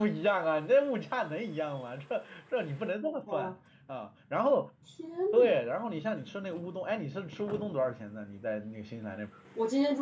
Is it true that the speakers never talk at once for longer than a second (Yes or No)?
Yes